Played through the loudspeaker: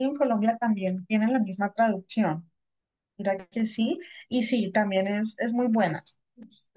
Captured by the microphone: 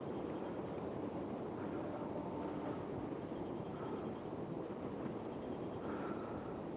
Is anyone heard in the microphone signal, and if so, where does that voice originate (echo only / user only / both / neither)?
neither